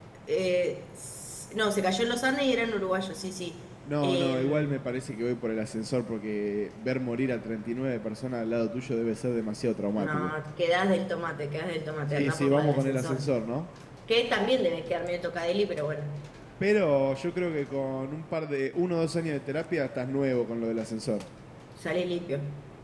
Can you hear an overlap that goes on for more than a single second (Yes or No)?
Yes